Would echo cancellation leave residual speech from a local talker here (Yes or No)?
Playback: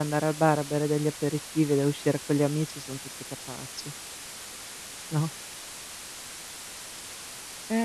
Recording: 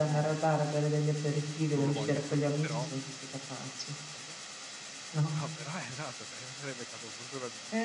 Yes